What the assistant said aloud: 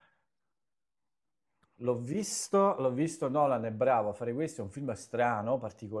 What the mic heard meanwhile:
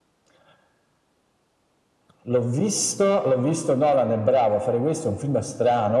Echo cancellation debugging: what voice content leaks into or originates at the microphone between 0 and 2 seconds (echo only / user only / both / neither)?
neither